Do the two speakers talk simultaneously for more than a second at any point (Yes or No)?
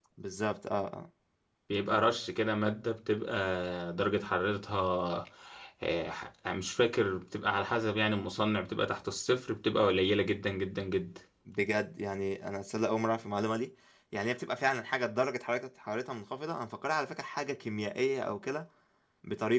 No